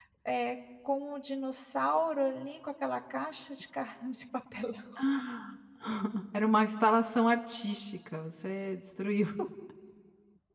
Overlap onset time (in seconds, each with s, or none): none